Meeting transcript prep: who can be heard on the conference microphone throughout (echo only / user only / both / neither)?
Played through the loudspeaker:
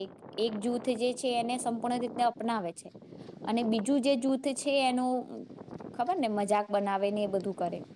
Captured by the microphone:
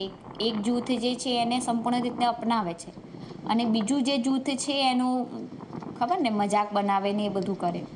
echo only